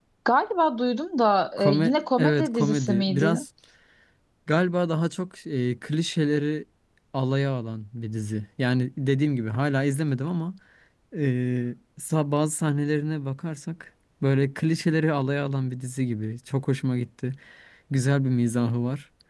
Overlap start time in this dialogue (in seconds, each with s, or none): 1.6 s